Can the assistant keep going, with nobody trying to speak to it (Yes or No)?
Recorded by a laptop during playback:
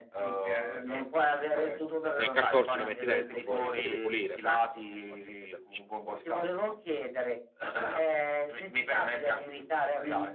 No